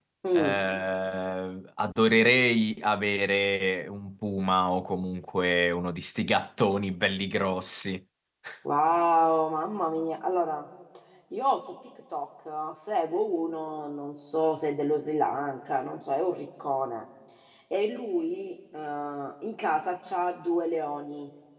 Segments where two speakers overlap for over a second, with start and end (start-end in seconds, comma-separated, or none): none